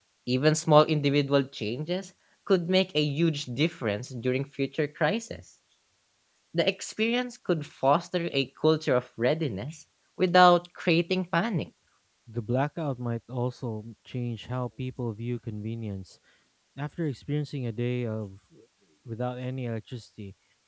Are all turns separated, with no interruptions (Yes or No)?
Yes